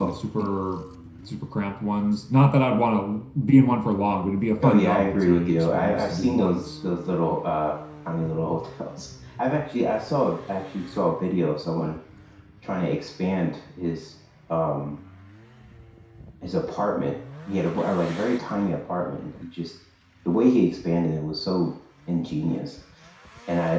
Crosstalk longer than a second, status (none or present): present